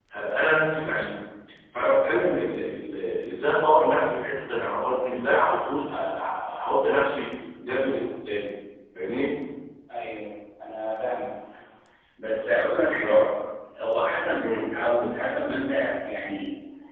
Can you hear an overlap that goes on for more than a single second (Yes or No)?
No